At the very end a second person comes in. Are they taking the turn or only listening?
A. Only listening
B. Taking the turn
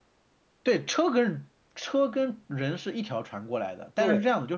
A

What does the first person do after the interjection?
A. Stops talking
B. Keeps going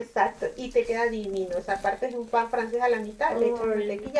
B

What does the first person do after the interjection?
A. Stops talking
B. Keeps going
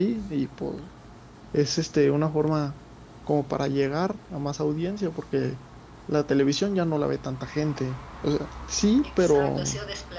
A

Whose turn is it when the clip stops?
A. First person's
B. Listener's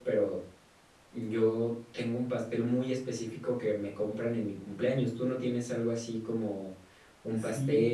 B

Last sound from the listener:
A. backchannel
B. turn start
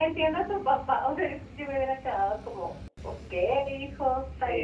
B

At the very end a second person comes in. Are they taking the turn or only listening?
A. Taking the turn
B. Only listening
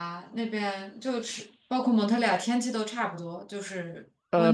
A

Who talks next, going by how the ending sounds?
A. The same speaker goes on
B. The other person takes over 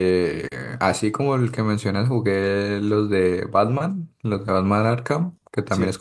A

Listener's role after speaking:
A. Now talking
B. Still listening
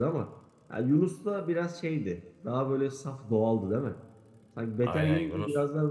B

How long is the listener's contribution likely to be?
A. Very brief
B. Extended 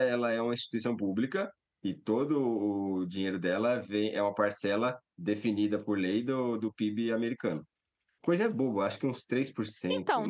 B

